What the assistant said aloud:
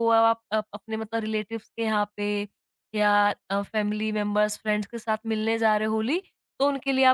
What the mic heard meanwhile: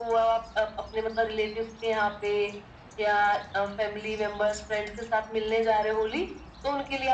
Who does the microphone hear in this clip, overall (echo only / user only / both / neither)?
echo only